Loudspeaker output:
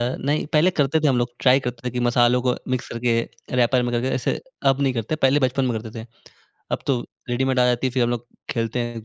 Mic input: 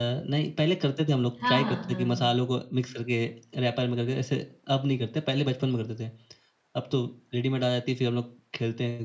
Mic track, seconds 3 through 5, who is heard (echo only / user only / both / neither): echo only